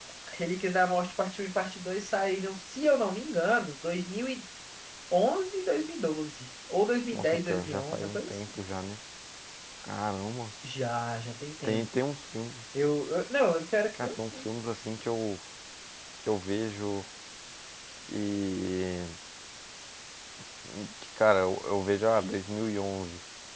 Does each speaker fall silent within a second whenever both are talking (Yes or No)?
No